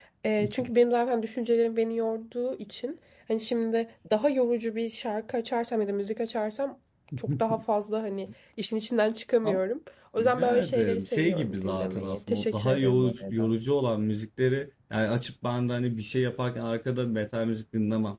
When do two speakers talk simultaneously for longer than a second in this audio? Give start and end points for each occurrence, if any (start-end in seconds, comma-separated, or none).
10.2-13.5